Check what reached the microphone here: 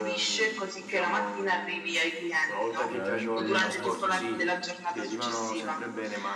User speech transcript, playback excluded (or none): Veramente assurdo.